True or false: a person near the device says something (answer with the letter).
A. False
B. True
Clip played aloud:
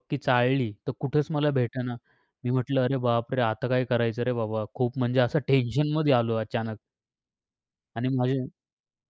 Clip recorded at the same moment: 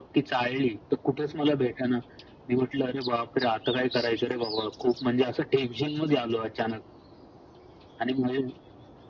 A